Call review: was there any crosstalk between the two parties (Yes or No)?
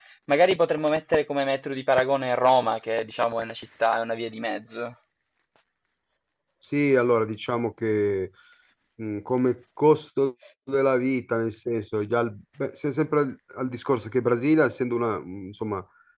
No